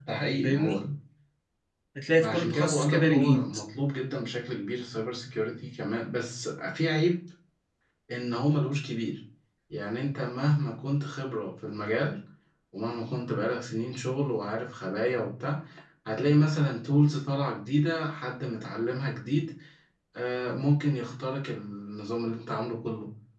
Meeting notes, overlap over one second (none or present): present